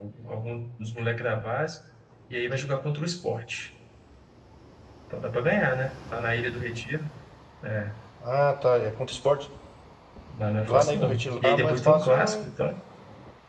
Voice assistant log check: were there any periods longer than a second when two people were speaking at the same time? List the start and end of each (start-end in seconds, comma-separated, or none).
10.7-12.5